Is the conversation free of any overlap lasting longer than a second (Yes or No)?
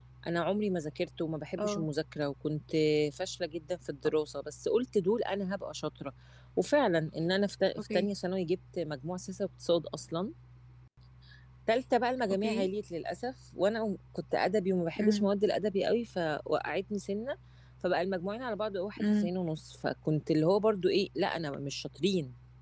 Yes